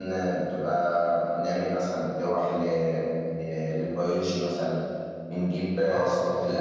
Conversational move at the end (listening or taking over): listening